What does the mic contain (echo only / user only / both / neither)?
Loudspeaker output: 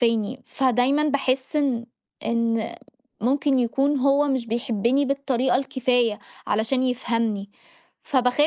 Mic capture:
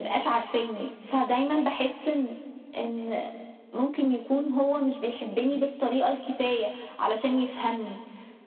echo only